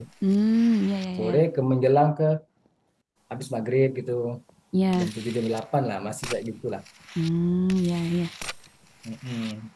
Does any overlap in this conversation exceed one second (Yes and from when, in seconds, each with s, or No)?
No